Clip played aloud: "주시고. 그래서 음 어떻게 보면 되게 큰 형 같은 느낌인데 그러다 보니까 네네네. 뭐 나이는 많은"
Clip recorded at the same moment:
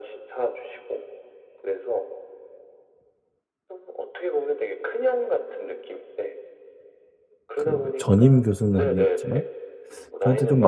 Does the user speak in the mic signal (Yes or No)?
Yes